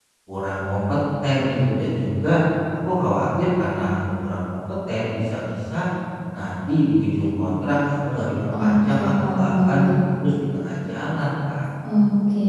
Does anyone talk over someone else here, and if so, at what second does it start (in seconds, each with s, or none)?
8.6 s